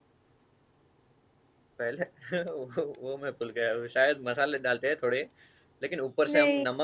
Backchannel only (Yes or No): Yes